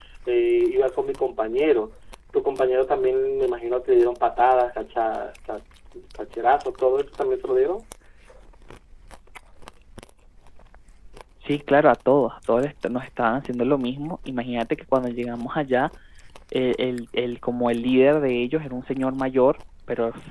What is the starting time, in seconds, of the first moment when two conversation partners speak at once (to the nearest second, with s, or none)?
none